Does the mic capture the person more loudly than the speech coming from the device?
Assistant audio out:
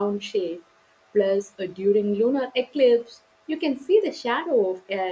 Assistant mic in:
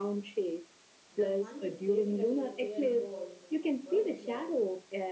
No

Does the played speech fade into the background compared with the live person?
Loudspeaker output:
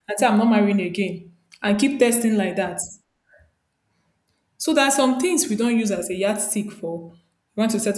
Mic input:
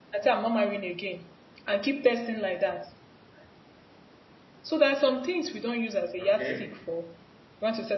No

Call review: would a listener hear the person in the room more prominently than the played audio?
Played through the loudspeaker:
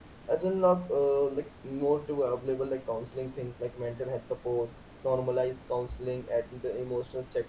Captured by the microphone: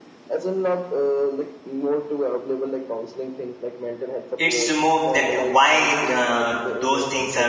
Yes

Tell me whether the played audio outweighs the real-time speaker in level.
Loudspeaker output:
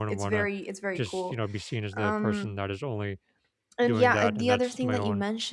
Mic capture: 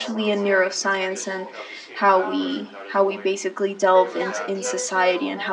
No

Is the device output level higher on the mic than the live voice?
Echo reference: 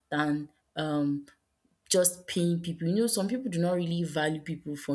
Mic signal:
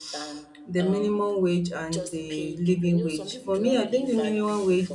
No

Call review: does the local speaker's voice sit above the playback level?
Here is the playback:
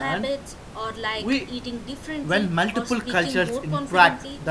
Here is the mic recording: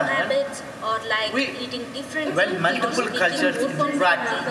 No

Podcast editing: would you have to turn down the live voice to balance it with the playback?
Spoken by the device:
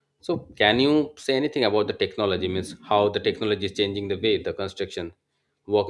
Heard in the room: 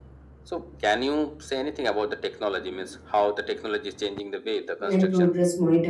Yes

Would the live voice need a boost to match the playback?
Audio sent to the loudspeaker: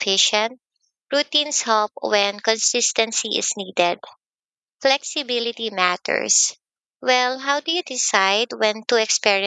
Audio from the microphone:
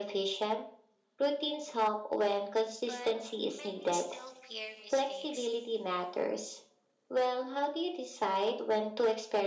Yes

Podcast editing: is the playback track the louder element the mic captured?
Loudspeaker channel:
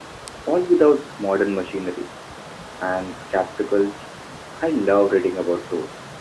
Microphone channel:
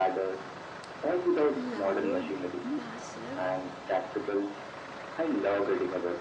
Yes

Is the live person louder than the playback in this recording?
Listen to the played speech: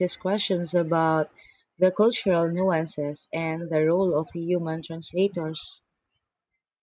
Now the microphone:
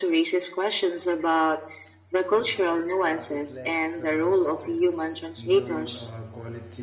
No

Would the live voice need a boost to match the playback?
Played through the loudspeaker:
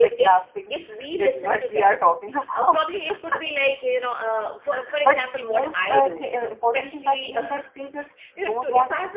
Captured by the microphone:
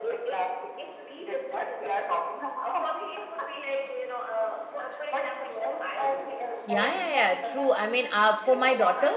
No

